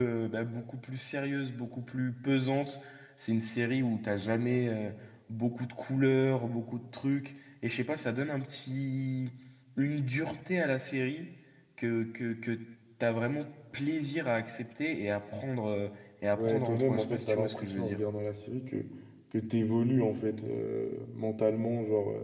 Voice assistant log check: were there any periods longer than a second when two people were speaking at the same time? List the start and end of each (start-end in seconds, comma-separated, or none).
16.4-18.0